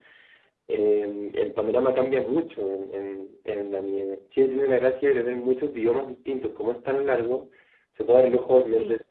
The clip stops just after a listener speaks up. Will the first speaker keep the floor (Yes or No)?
Yes